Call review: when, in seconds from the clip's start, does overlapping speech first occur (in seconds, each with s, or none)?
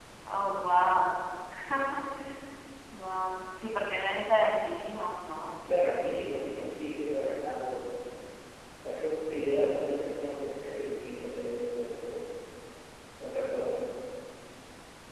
none